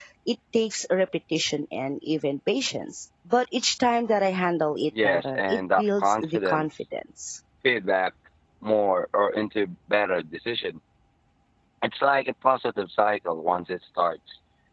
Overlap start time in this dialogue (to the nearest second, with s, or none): 5 s